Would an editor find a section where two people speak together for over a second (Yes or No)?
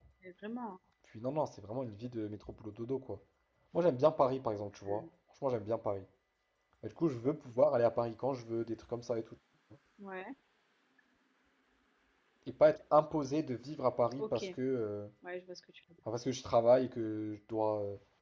No